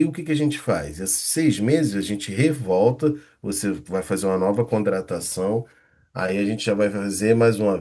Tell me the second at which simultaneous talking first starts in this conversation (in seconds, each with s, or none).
none